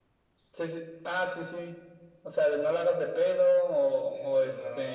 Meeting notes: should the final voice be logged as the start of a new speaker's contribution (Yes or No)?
Yes